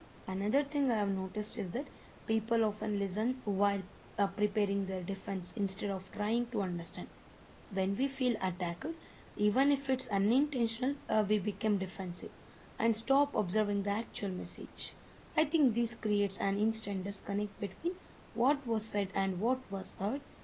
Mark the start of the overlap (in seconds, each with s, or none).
none